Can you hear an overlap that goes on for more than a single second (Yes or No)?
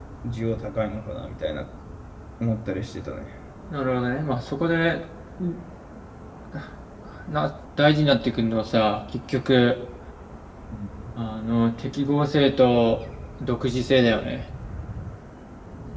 No